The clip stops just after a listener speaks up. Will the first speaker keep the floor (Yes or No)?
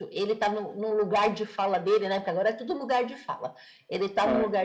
Yes